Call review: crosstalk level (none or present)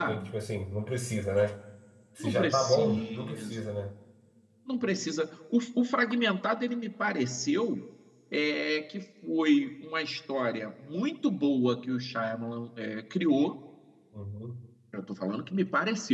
present